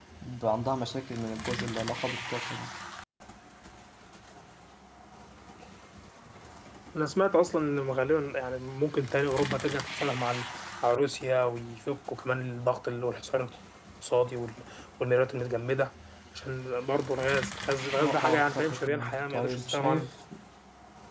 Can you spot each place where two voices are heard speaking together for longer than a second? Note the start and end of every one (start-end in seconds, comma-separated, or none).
18.0-20.1